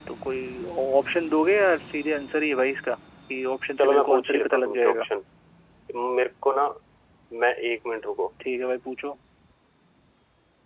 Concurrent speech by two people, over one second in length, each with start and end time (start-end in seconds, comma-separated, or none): 3.8-5.1